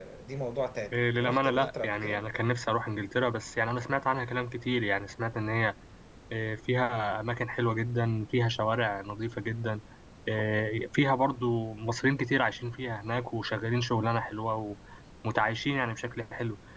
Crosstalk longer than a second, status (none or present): present